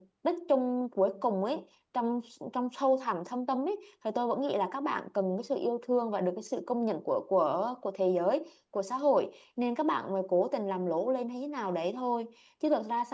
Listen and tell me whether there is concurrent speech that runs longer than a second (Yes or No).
No